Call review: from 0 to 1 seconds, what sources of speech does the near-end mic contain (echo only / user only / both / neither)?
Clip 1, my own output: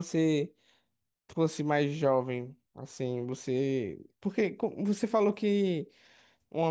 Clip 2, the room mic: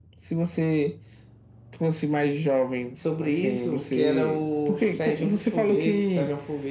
echo only